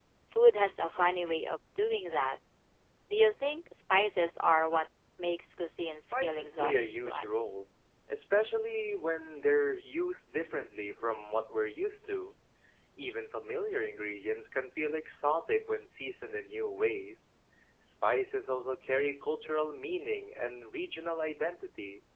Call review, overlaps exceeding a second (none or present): present